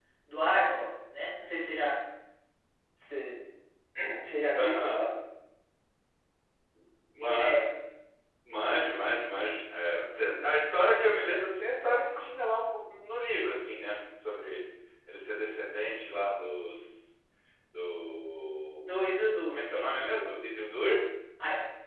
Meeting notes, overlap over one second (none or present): none